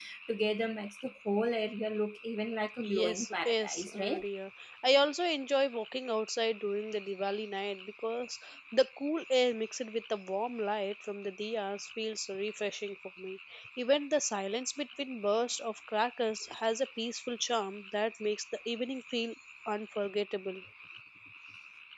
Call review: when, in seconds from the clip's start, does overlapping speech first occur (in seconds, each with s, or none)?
2.8 s